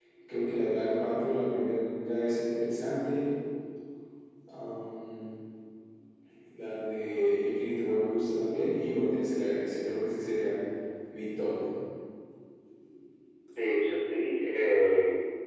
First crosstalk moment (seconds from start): none

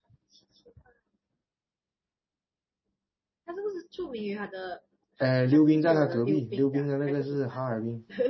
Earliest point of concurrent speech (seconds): 5.2 s

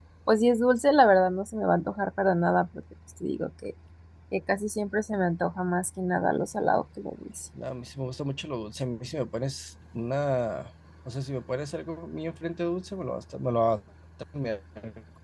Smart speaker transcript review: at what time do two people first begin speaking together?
none

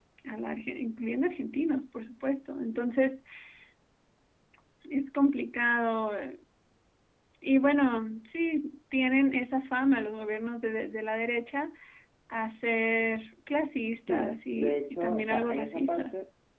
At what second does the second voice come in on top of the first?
14.1 s

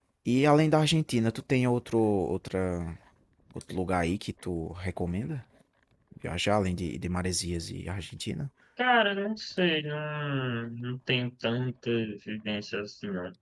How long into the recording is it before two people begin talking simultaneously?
none

